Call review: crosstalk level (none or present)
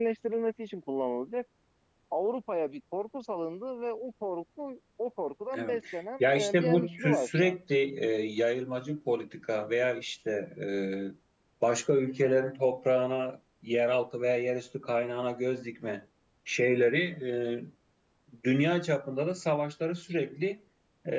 present